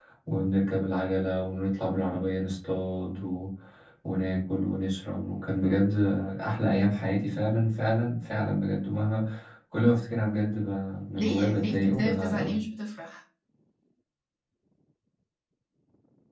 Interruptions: present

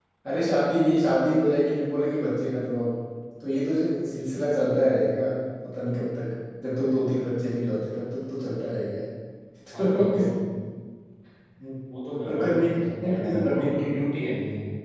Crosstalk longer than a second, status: present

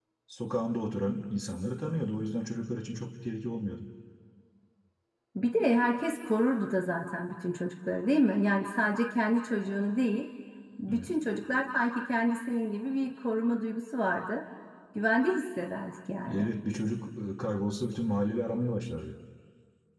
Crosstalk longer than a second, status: none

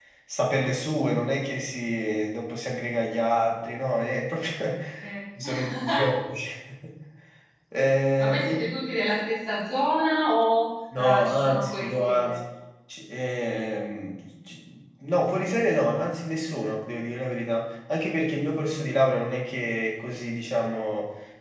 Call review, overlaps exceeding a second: present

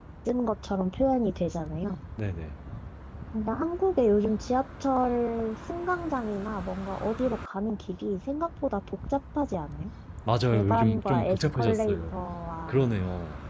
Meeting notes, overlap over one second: present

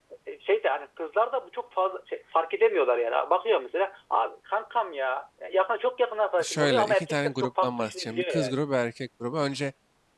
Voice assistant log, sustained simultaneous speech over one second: present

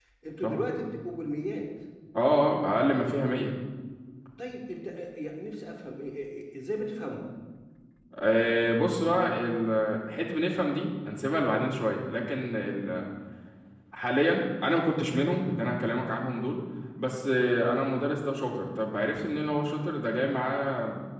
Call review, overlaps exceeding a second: none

